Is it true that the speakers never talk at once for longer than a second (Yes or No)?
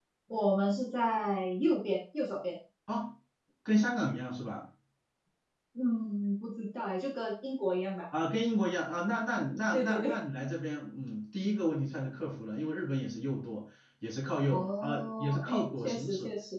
No